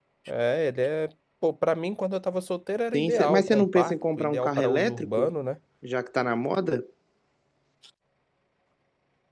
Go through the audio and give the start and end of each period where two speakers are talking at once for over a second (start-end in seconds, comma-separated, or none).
2.9-5.3